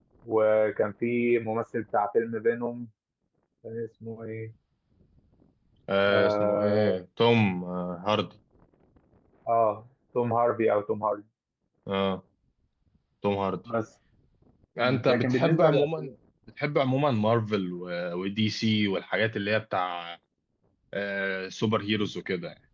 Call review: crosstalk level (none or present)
present